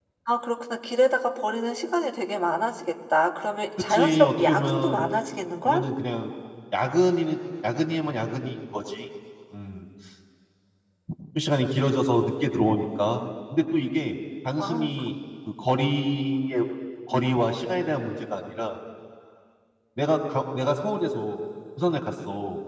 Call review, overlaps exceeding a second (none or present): present